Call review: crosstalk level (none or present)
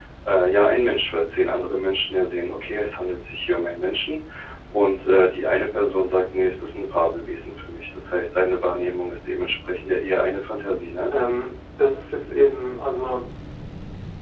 none